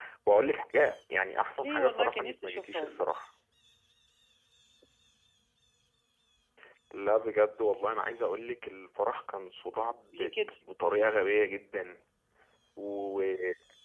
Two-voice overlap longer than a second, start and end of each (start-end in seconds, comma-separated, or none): 1.6-3.1